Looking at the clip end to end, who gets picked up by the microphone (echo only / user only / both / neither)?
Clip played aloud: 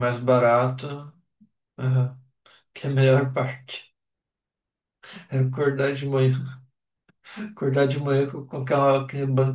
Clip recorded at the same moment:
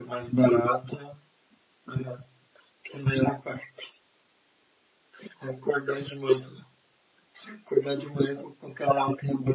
echo only